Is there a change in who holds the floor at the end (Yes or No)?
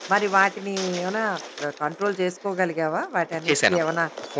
Yes